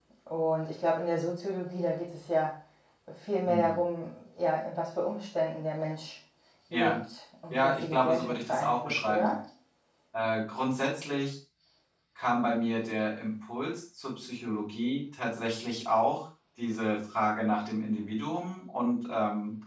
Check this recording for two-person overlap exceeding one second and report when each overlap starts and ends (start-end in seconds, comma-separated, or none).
7.5-9.3